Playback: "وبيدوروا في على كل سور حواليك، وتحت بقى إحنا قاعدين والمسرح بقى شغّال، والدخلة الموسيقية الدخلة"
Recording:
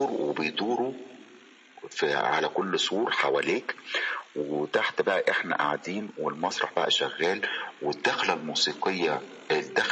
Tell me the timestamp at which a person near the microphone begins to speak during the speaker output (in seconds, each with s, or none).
none